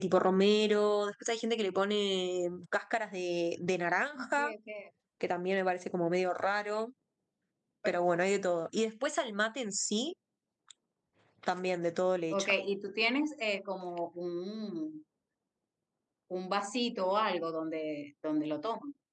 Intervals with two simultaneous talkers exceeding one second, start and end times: none

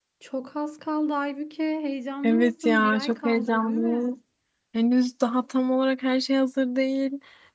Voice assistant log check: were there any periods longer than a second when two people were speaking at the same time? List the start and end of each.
2.2-4.2

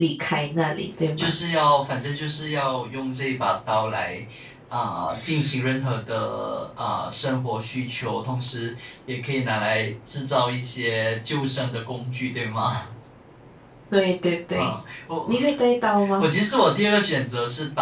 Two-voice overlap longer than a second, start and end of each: none

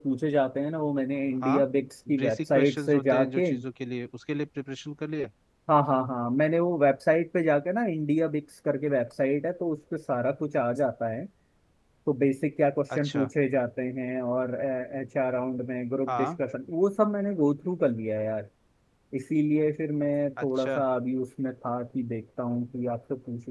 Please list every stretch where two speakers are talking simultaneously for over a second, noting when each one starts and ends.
2.2-3.5

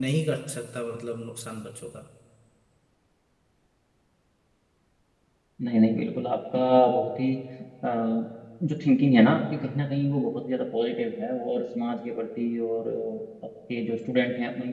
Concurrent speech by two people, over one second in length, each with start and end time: none

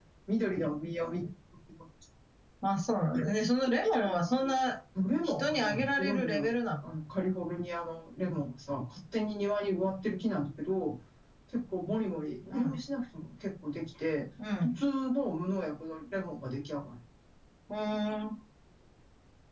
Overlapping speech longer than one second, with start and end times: 5.2-6.5

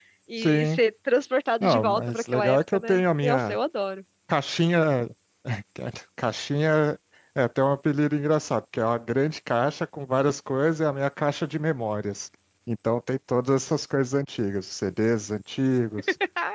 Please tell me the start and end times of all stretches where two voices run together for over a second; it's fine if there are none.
1.6-3.6

